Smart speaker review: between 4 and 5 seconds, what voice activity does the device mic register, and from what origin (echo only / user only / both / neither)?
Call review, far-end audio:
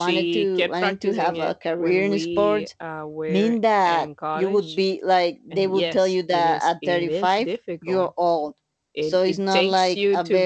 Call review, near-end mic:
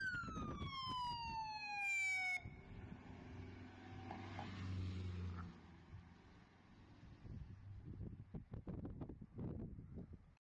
neither